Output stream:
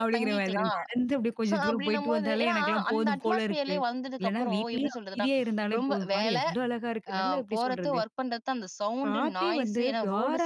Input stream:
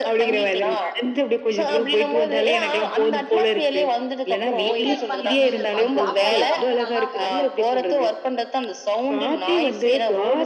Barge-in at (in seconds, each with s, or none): 4.6 s